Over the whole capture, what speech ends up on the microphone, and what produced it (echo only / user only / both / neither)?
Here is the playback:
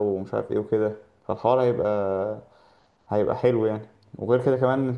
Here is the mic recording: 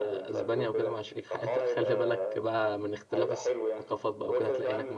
both